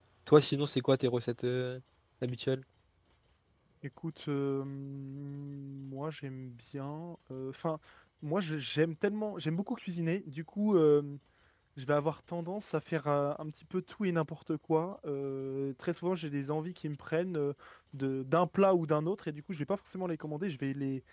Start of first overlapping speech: none

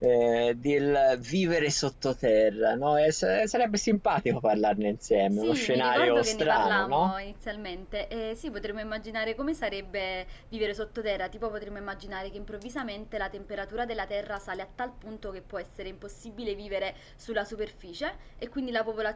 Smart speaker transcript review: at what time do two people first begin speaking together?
5 s

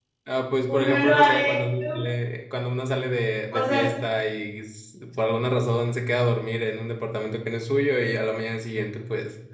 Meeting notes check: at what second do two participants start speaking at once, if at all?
1 s

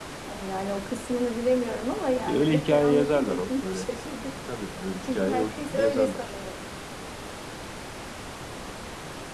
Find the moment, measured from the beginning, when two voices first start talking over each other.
2 s

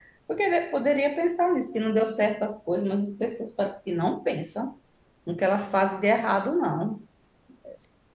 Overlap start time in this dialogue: none

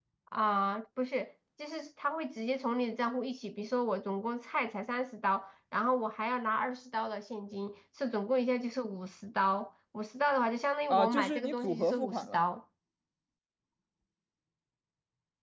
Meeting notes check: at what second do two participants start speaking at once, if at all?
11 s

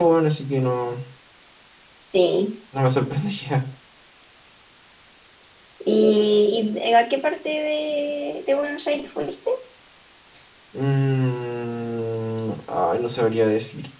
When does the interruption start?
none

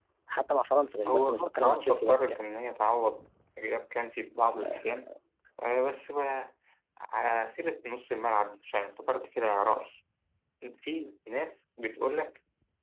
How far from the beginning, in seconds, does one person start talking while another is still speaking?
1 s

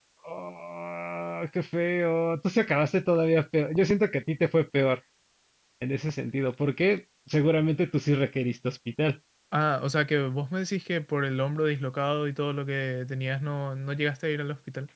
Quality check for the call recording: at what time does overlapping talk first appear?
none

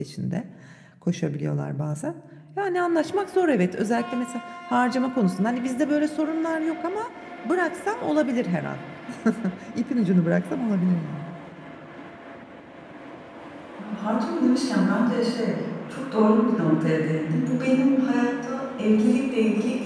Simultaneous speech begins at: none

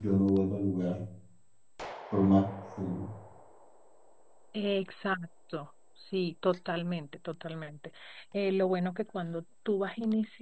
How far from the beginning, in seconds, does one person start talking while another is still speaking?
none

